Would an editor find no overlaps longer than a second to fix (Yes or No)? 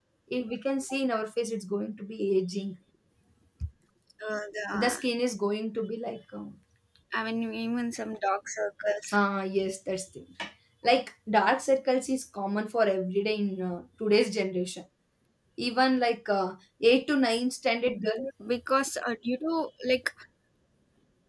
Yes